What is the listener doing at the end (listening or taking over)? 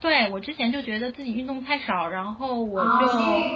taking over